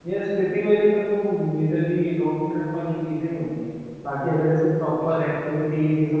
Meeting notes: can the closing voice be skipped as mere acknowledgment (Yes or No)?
Yes